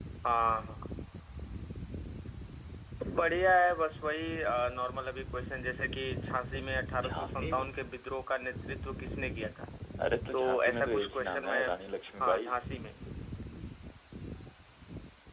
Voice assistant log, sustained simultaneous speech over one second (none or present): present